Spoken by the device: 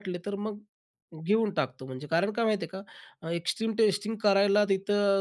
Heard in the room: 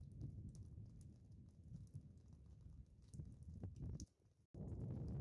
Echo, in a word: none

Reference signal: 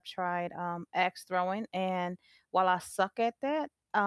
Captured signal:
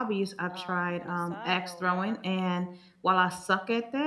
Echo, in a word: present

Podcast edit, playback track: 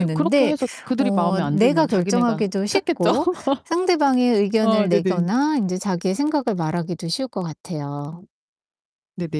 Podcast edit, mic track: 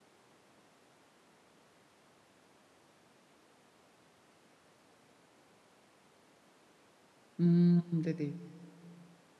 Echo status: none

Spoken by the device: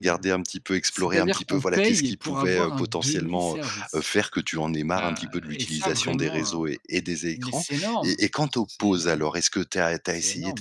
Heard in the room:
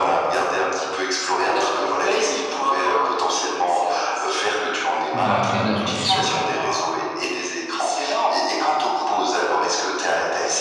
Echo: present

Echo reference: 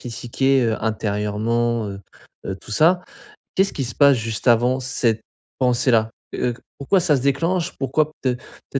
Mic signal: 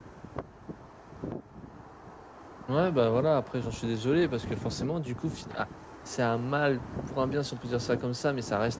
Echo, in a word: none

